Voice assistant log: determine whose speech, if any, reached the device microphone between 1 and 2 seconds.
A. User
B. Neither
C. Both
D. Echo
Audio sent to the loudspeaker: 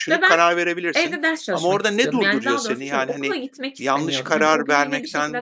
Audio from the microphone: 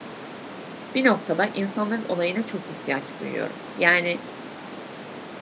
A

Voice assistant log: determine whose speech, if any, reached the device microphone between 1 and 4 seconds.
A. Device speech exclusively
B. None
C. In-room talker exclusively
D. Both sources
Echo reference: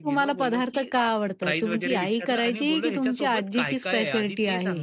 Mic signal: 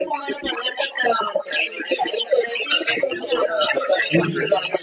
D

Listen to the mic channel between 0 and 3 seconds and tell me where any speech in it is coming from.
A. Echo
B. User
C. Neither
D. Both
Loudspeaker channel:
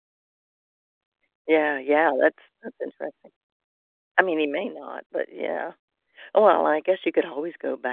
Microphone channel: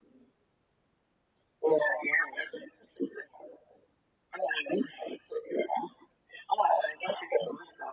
A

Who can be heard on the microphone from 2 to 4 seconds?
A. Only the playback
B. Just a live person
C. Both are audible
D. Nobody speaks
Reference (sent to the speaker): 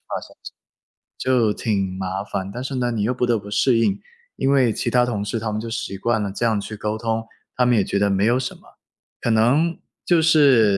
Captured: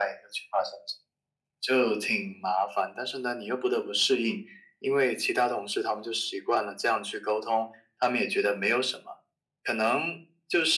A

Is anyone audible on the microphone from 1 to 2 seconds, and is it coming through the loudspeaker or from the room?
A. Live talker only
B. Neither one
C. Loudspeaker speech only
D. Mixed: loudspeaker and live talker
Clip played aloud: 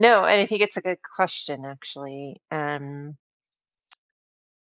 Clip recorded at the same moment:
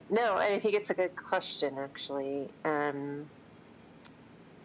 C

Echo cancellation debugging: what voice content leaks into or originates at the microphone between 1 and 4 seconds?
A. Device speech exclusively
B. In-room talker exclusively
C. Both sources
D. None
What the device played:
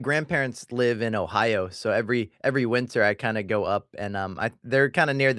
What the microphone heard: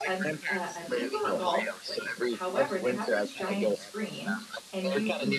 C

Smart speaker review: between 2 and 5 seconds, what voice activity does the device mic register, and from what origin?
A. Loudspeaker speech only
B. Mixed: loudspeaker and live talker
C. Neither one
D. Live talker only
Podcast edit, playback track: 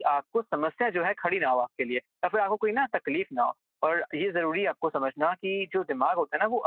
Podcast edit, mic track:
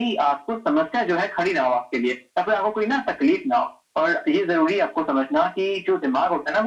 A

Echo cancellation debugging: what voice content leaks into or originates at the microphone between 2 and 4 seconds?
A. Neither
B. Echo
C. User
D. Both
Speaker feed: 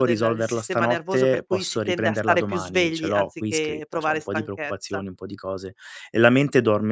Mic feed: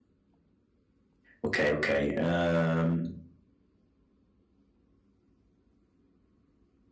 C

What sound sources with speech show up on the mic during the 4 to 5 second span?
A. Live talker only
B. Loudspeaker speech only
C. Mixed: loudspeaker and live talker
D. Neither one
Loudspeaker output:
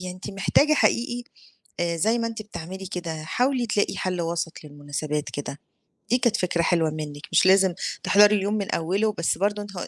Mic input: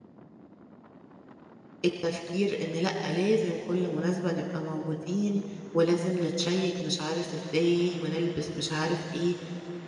A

